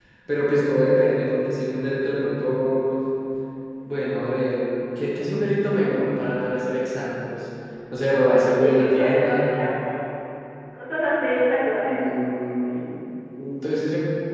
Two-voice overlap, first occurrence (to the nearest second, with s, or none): 8 s